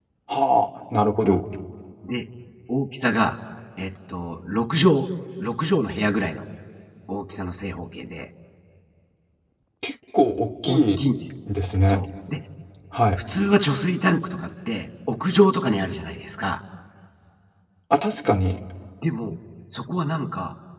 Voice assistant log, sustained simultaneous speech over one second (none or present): none